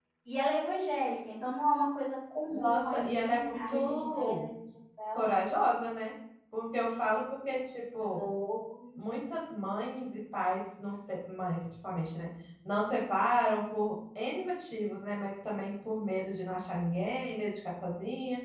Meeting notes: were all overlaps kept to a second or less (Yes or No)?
No